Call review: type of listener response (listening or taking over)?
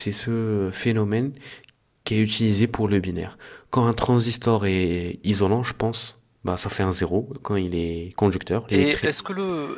taking over